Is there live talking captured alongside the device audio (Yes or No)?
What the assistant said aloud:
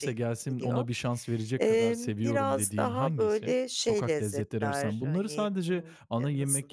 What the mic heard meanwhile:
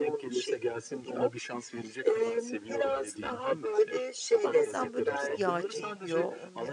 Yes